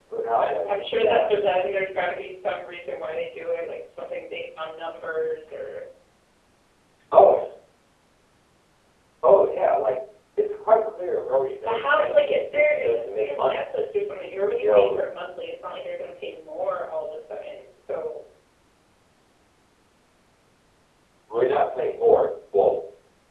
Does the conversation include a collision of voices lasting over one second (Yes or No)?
Yes